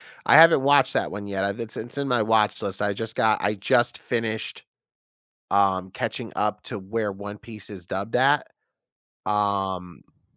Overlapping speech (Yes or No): No